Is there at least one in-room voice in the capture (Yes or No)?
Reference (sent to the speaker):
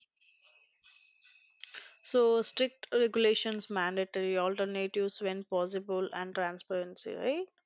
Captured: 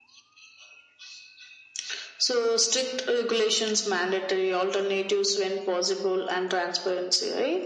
No